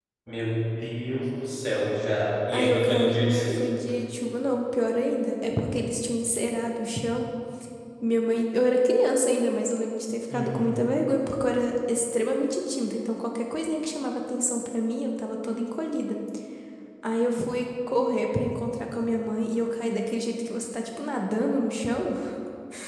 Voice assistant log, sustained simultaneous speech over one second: present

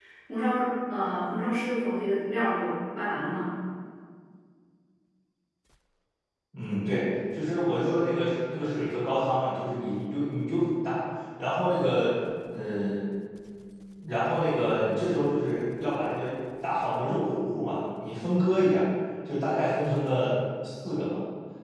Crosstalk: none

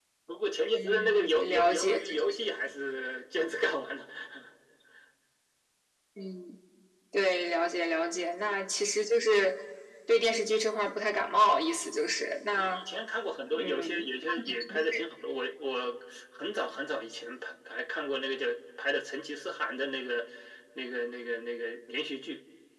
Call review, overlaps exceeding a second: present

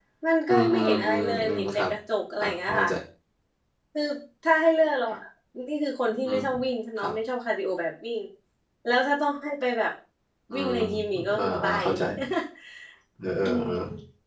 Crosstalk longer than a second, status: present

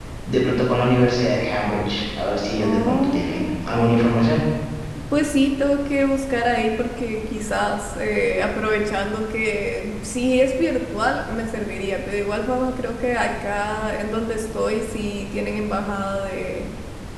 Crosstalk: present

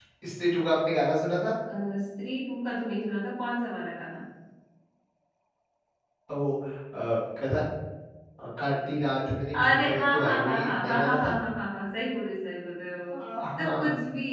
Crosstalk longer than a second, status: present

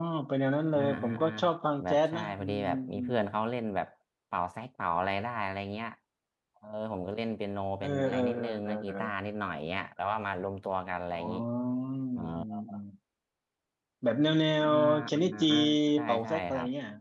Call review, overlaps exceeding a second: present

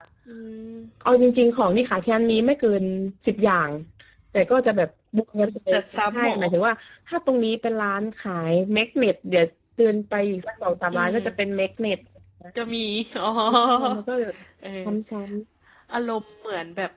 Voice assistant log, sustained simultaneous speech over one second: none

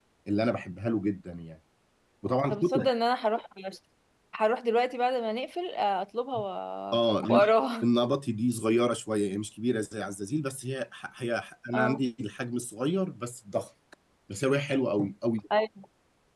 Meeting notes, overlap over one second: none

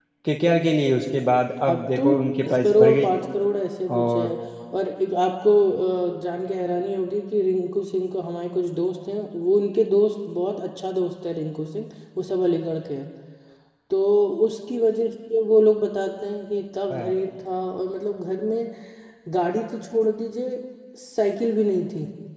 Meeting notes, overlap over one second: present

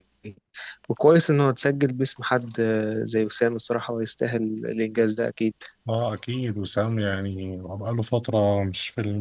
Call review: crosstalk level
none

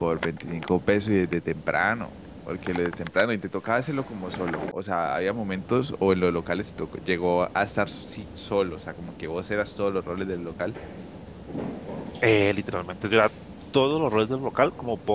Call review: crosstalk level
none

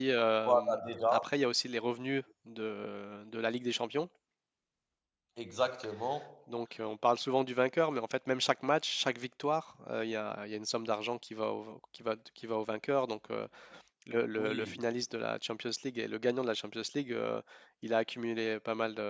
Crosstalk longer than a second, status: none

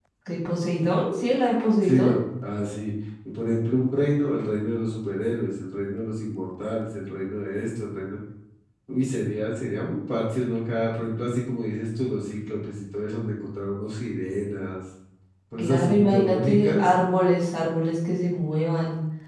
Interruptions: present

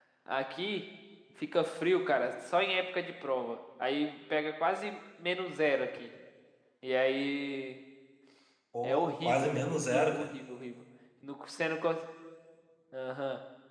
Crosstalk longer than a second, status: present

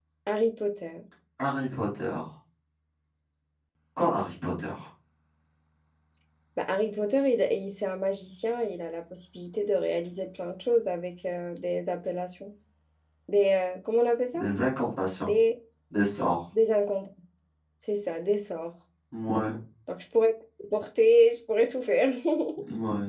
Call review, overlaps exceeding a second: none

